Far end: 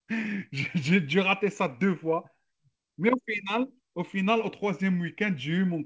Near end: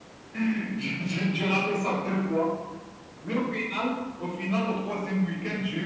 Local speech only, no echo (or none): none